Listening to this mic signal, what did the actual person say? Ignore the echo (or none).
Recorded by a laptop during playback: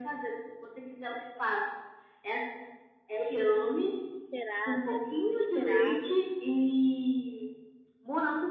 Ficou desesperada, desesperada.